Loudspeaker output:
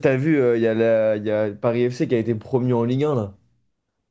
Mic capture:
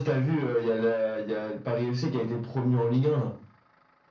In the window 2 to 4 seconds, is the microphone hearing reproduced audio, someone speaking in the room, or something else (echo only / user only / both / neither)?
echo only